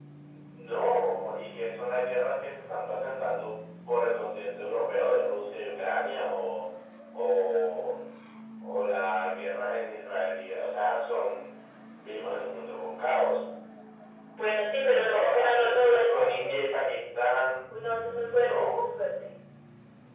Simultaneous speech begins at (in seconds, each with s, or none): 15.1 s